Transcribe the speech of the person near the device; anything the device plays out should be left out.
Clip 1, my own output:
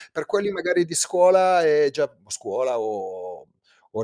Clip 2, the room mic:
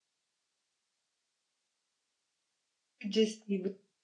Più gestibi

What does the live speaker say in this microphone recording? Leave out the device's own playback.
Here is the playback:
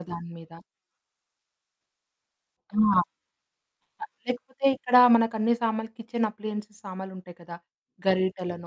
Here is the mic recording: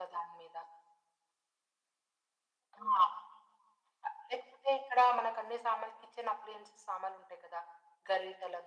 none

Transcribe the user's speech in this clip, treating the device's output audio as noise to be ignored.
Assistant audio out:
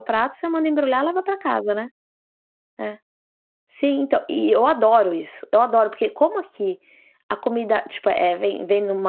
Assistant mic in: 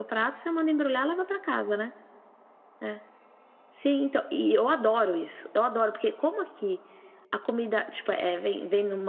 none

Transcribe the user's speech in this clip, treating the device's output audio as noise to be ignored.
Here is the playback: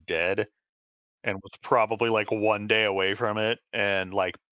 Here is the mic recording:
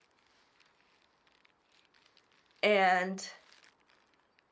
and

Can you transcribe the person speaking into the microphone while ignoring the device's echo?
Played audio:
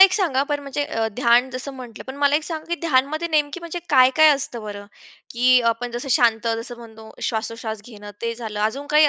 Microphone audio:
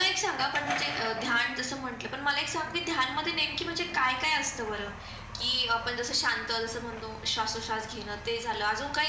none

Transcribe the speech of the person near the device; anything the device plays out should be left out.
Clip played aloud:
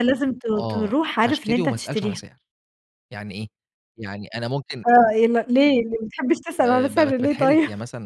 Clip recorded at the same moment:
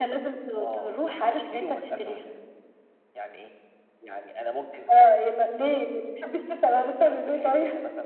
none

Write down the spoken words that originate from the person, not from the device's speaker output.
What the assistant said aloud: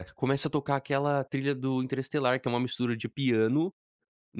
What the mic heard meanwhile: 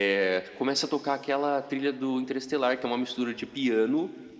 none

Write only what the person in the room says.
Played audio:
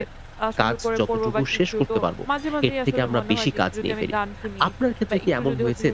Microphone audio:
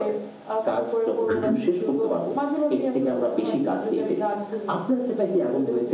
হু, হু।

